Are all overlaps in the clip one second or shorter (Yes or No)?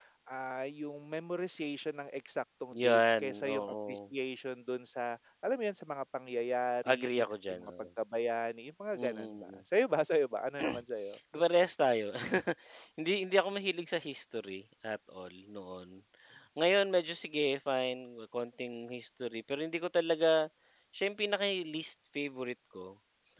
No